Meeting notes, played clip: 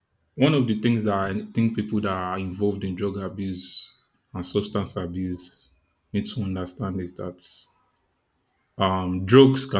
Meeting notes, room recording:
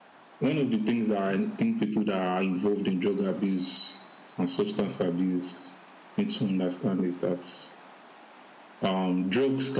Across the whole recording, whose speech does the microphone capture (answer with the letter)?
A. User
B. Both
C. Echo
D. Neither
C